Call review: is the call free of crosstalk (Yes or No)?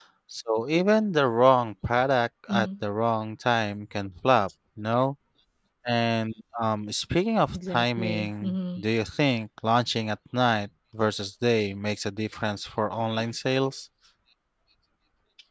No